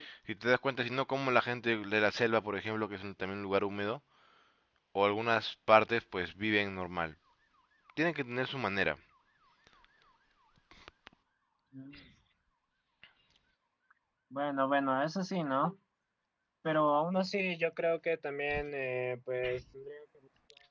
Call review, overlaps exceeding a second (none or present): none